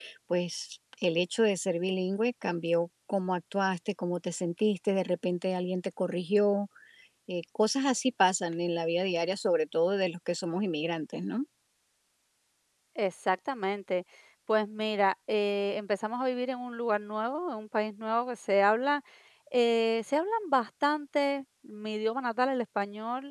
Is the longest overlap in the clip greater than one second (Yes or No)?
No